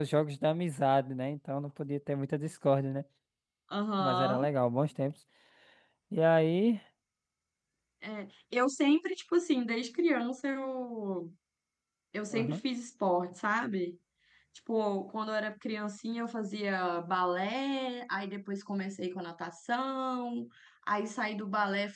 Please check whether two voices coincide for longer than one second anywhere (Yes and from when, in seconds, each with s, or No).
No